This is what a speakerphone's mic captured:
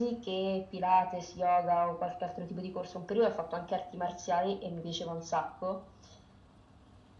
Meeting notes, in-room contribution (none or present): none